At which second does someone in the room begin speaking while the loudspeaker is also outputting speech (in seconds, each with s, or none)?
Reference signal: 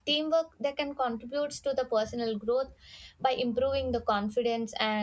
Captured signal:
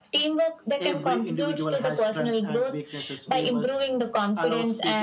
0.8 s